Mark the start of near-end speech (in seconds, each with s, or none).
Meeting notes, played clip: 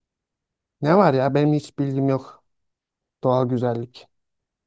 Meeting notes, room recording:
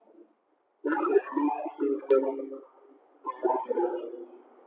none